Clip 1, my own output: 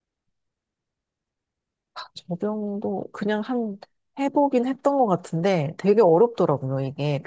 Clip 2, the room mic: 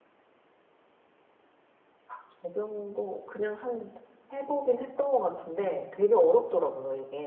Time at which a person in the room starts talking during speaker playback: none

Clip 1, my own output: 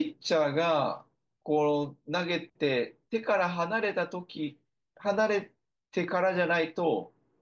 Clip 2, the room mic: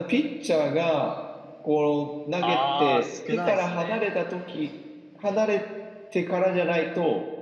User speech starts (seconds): 2.4 s

